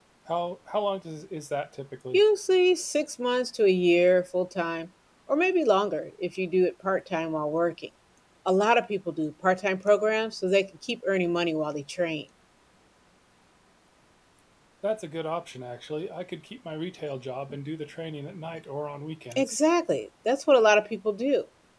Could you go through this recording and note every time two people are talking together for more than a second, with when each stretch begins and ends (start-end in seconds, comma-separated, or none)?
none